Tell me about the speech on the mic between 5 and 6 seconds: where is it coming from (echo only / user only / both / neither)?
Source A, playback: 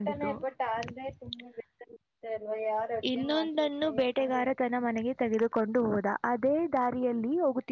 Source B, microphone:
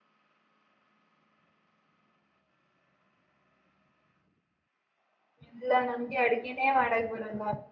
user only